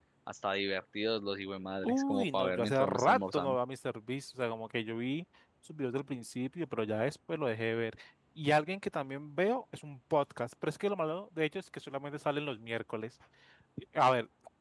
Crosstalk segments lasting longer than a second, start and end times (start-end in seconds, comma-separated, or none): 1.8-3.6